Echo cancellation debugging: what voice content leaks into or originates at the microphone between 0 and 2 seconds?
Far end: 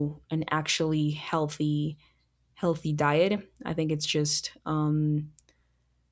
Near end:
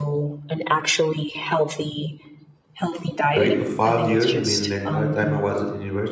echo only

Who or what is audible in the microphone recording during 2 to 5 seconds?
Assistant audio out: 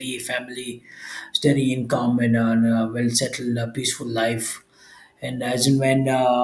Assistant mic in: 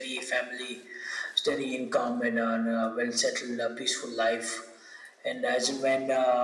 echo only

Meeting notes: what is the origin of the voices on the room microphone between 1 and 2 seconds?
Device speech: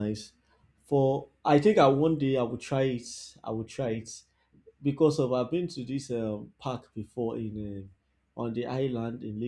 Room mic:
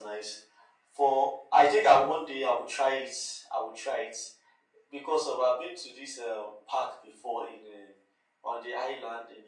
echo only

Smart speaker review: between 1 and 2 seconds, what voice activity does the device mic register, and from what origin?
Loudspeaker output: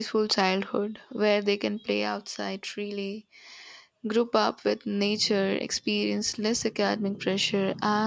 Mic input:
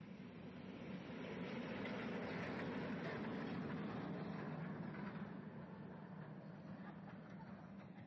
neither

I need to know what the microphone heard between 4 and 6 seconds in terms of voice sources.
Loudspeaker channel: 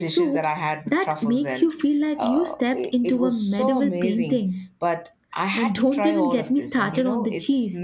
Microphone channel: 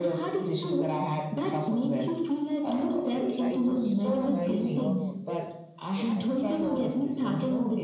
both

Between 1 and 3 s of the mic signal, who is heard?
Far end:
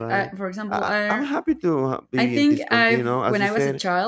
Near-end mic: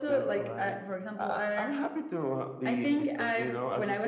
echo only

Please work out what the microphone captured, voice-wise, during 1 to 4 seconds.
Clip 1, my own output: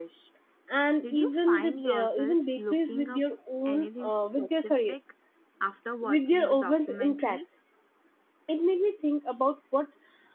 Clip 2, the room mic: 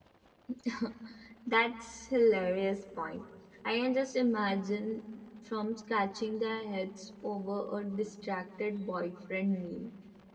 user only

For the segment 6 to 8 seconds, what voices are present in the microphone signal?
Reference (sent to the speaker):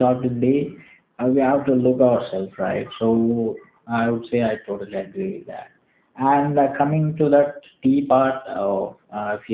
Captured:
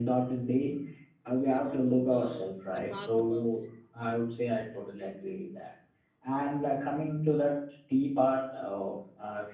echo only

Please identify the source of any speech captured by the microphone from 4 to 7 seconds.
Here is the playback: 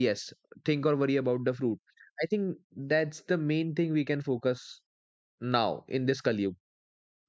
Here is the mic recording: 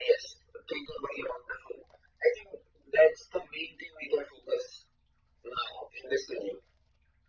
echo only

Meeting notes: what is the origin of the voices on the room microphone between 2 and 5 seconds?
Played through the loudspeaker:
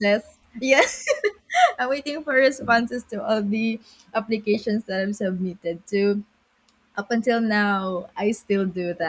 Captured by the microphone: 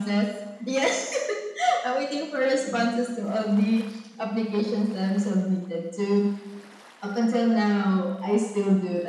echo only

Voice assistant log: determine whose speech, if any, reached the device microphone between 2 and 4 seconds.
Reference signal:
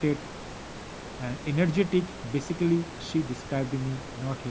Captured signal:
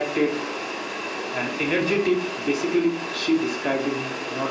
echo only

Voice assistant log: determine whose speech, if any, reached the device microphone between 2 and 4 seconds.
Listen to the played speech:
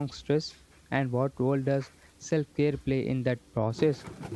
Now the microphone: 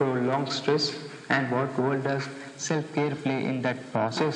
echo only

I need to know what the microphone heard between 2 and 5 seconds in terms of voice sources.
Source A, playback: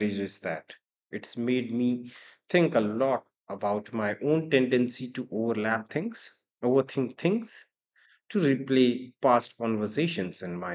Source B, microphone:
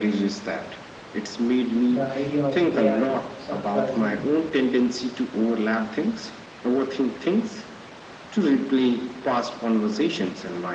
both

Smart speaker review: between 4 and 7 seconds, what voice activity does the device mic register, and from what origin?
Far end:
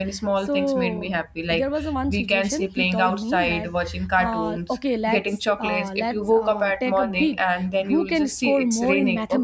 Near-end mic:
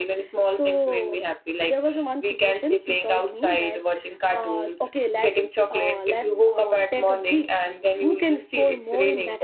echo only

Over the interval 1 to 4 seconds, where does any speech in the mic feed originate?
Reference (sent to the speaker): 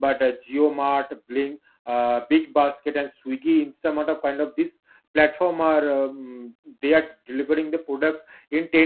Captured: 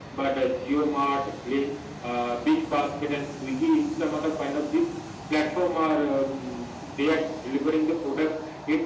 echo only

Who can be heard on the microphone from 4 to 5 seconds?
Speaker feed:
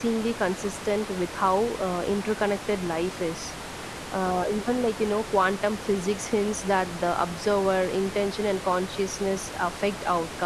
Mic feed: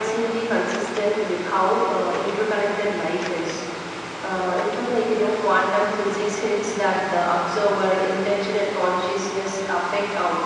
echo only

